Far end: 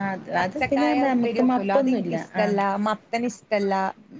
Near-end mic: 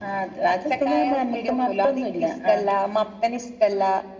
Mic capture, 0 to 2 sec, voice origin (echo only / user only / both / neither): echo only